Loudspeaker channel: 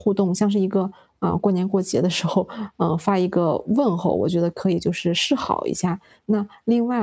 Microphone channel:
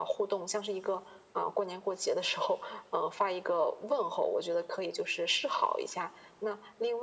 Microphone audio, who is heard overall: echo only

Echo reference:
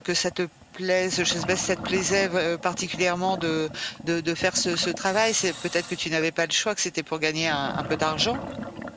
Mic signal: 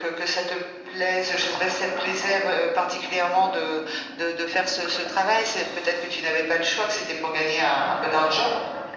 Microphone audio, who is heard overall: echo only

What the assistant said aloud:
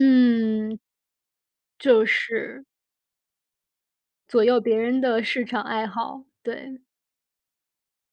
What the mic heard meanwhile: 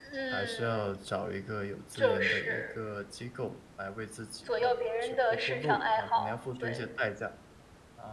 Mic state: both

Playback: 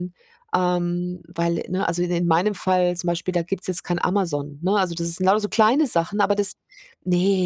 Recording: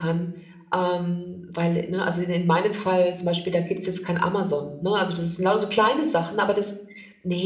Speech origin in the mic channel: echo only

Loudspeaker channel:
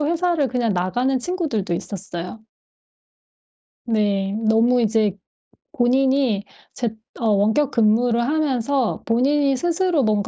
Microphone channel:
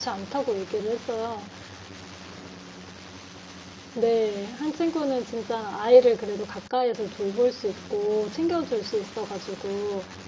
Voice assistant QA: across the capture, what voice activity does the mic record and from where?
user only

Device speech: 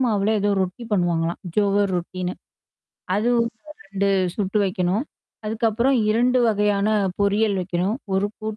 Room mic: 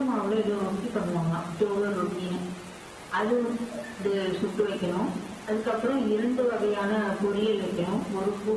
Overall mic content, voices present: echo only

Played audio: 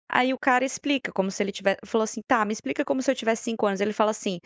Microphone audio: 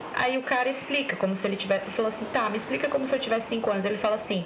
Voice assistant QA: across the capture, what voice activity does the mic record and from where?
echo only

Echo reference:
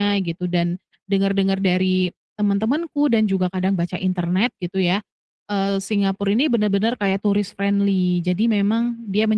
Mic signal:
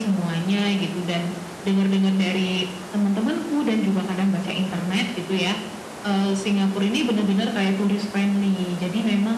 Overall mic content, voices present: echo only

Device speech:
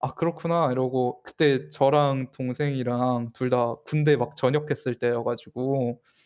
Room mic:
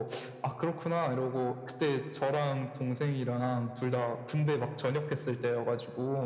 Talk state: echo only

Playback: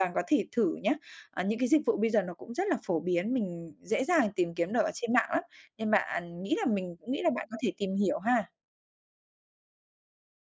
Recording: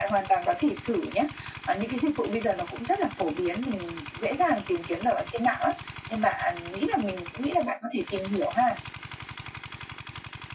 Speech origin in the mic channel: echo only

